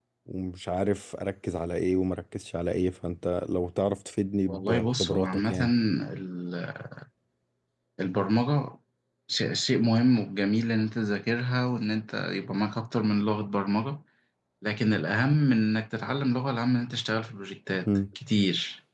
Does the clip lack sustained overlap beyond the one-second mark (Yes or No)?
No